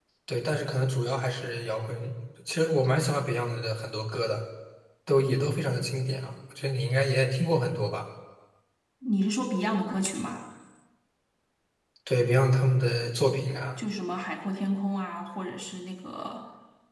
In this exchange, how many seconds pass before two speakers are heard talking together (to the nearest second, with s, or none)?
none